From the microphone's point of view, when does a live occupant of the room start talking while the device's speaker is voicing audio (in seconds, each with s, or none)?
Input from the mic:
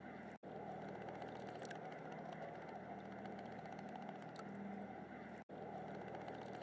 none